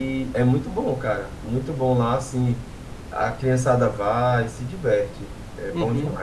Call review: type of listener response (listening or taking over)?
taking over